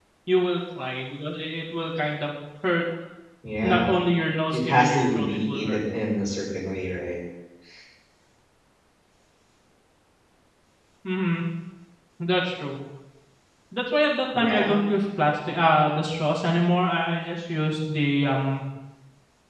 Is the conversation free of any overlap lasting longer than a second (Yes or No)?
No